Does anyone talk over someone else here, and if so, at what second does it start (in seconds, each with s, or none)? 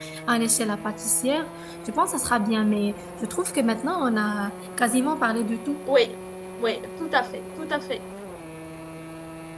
none